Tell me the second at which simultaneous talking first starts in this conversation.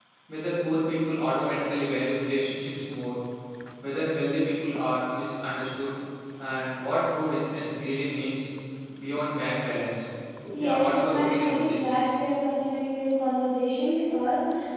10.6 s

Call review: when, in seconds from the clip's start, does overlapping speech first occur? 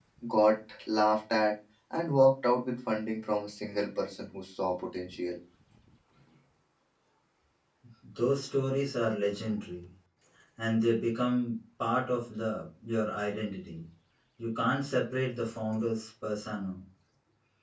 none

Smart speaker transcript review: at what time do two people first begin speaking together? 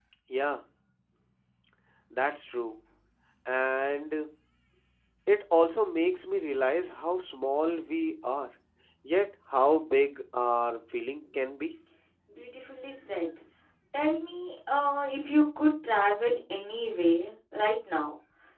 none

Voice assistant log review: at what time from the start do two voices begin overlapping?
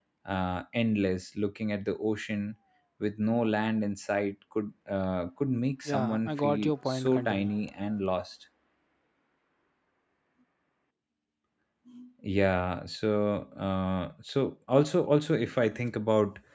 5.8 s

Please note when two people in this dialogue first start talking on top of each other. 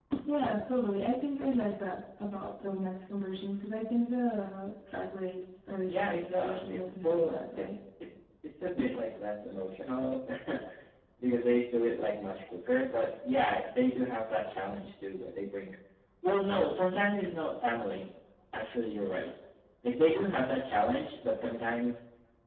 5.9 s

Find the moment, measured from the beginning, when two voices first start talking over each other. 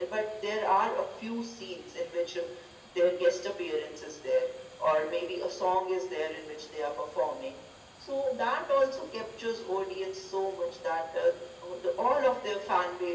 none

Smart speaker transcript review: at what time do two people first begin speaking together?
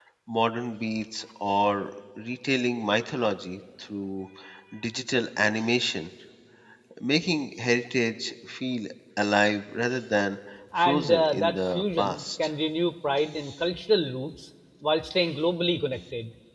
10.8 s

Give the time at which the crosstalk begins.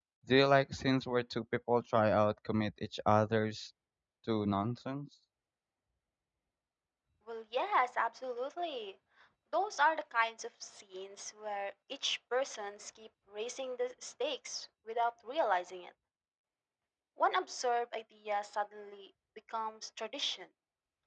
none

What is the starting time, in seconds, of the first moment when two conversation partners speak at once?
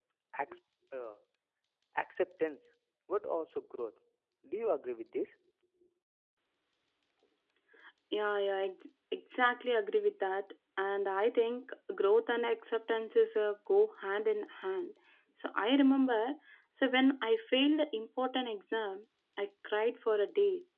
none

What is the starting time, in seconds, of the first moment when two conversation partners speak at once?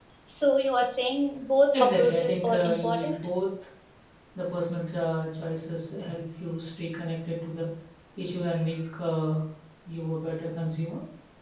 1.7 s

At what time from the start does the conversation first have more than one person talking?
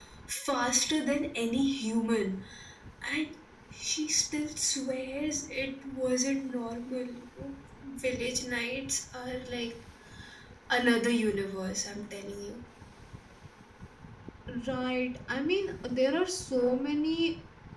none

